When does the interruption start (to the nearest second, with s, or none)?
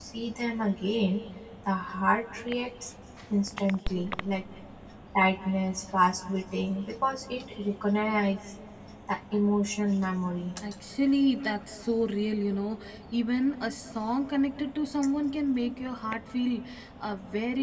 none